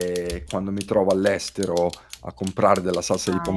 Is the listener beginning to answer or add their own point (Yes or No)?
No